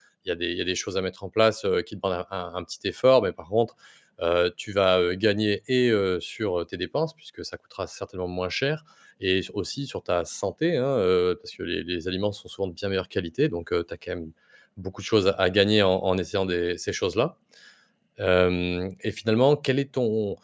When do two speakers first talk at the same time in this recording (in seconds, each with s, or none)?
none